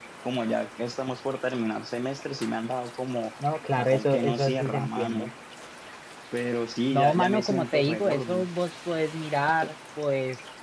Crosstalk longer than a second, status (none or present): present